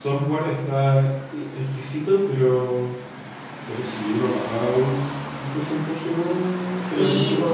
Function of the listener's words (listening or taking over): taking over